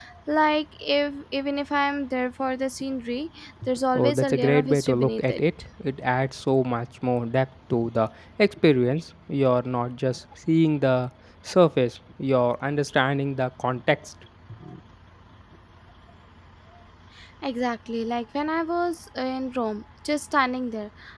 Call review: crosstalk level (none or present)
present